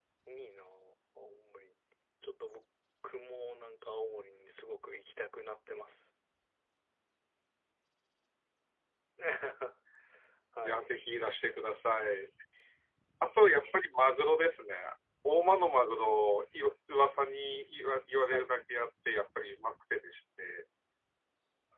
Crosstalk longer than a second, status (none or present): none